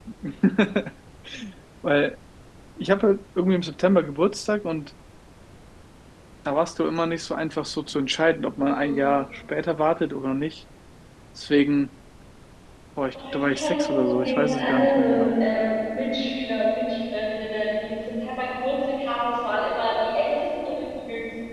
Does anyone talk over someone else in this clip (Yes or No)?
Yes